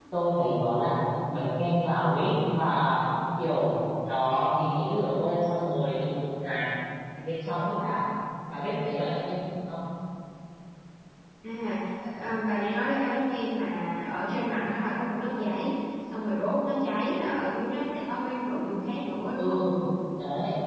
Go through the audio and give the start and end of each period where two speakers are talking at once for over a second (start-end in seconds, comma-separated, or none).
none